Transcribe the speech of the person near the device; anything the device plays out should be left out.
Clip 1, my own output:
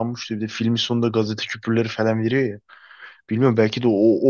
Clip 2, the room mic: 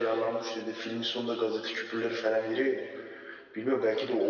none

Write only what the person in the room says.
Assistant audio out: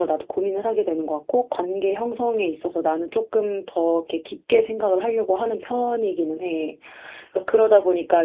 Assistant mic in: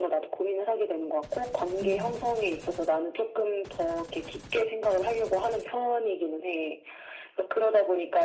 음.

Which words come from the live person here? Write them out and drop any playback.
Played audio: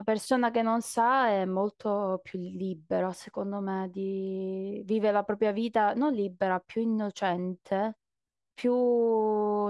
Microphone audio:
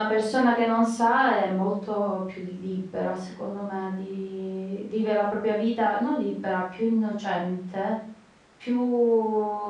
none

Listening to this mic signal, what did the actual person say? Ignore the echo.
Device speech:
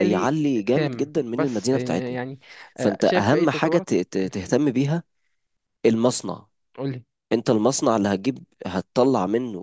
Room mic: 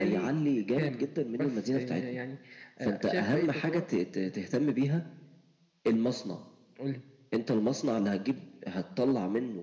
none

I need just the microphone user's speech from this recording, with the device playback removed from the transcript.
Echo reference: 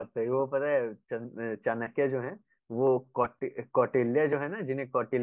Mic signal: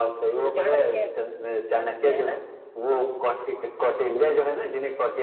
चाणक्य है चाणक्य है ना

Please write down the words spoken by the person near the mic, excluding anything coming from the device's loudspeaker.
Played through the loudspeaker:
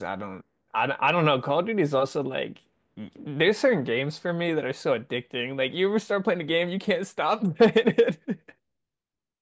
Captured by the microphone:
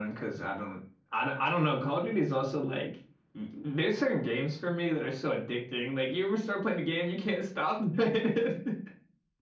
none

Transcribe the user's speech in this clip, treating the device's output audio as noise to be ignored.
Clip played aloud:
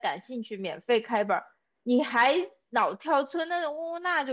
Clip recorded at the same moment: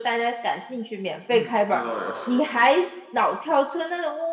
嗯，那倒也是，

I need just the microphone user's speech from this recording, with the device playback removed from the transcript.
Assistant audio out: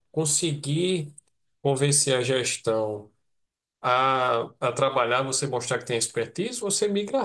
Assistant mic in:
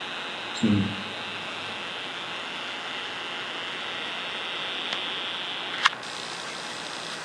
Sim,

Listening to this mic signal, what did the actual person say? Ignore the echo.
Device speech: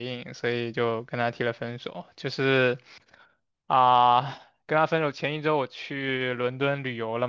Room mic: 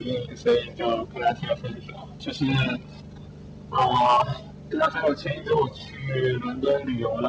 none

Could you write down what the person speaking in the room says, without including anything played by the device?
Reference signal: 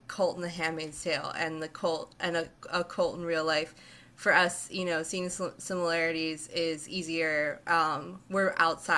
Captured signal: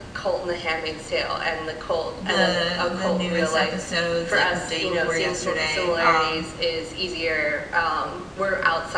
the the newest episodes like the day before yesterday. Um,

